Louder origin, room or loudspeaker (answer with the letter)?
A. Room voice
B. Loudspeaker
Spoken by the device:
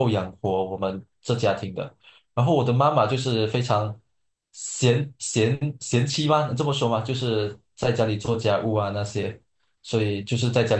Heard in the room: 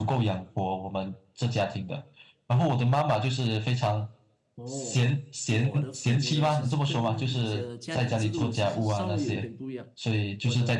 B